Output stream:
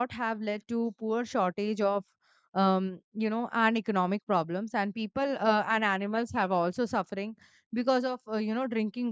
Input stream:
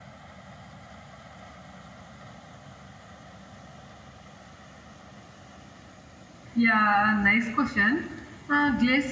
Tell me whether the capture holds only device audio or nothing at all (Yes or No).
No